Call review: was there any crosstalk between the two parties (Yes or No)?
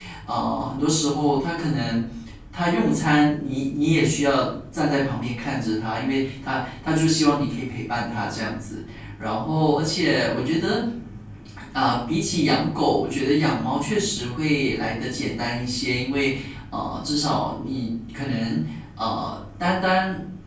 No